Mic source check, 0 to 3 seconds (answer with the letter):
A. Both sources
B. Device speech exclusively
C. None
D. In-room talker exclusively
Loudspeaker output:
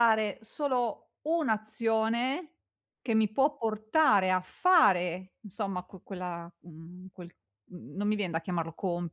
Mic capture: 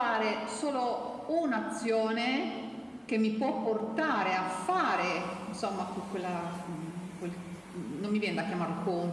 B